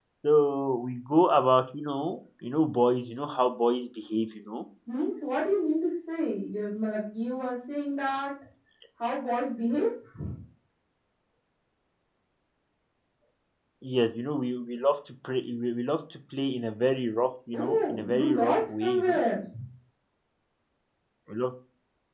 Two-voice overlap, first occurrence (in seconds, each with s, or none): 17.5 s